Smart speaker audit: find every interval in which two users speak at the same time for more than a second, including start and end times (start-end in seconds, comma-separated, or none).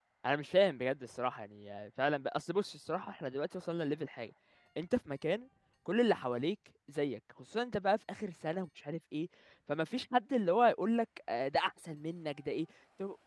none